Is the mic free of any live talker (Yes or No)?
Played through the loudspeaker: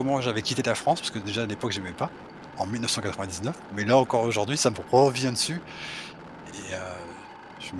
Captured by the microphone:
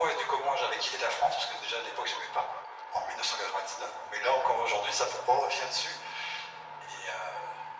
Yes